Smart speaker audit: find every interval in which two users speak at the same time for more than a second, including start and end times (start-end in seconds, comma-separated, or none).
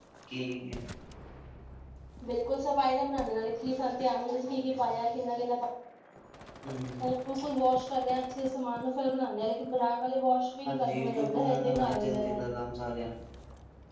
10.7-12.4